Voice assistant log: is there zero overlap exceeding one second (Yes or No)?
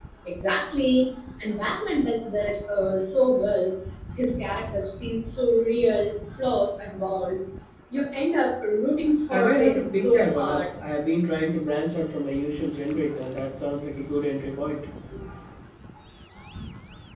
No